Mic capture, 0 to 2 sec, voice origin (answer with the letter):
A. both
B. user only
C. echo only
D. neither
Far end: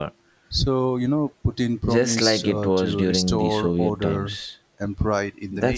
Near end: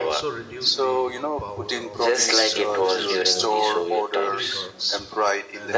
A